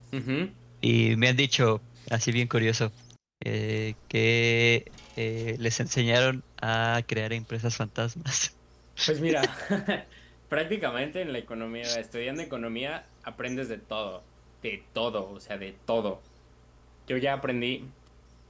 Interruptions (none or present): none